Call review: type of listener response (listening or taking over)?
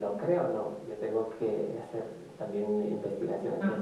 listening